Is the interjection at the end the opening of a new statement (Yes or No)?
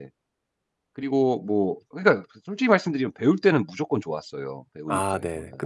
Yes